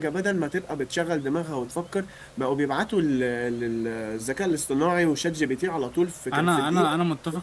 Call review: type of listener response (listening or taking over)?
taking over